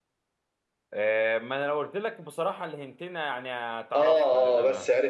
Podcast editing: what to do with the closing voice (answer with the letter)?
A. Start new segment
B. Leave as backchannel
A